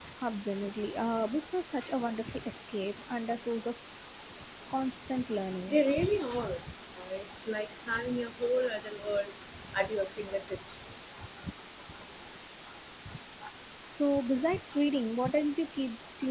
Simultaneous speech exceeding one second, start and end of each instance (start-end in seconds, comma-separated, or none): none